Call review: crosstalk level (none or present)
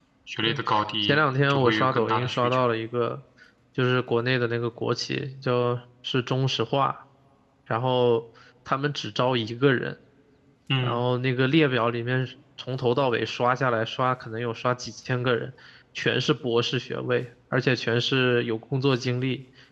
present